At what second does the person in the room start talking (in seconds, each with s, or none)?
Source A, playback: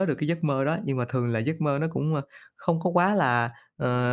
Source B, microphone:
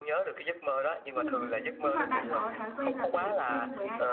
1.1 s